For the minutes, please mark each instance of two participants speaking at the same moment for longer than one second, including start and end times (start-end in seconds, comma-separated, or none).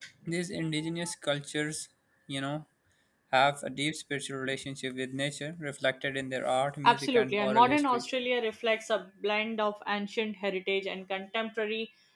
6.8-8.1